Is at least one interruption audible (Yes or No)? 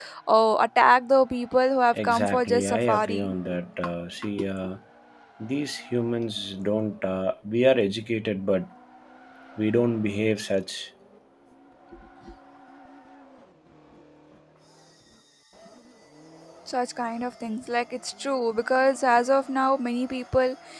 Yes